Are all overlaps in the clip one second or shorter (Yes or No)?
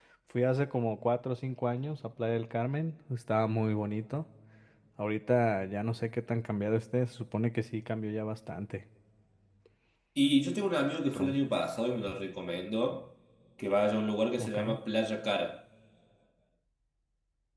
Yes